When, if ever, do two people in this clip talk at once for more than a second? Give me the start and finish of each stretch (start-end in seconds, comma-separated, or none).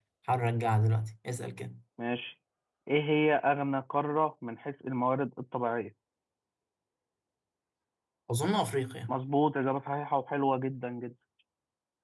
none